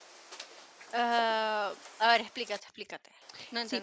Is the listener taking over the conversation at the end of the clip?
Yes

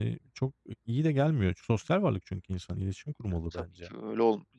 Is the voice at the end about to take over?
Yes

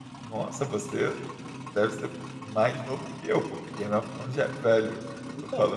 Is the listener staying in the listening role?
Yes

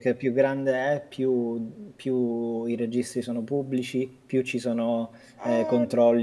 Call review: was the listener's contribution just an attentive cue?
Yes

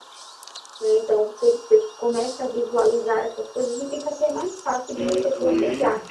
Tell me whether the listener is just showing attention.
No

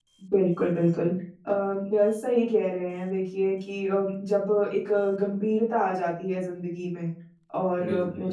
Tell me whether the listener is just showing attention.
Yes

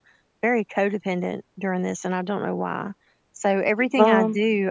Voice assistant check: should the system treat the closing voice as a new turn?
No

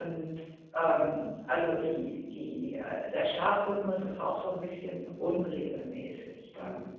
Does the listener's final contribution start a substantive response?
Yes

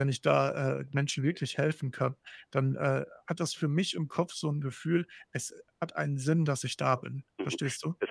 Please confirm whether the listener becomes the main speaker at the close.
Yes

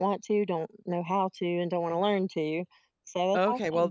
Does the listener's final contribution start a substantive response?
Yes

